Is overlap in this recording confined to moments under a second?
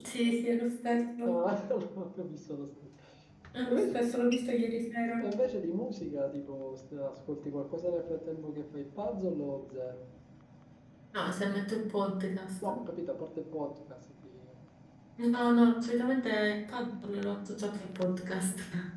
Yes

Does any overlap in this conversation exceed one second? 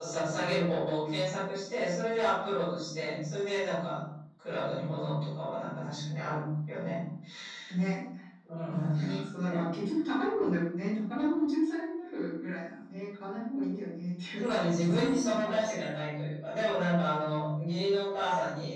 Yes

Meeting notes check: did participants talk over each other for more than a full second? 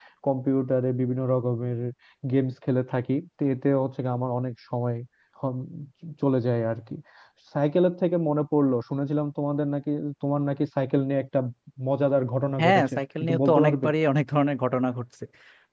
Yes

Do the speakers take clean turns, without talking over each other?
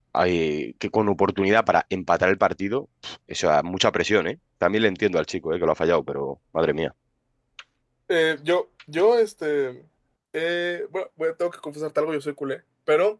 Yes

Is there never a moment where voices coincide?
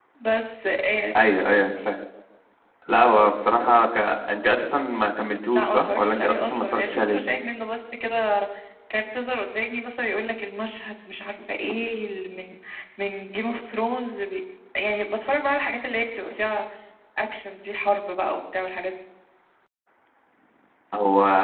No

